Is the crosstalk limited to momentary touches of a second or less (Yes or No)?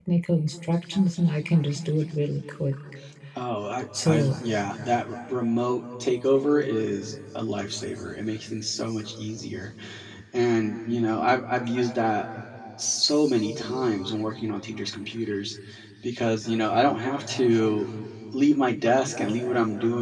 Yes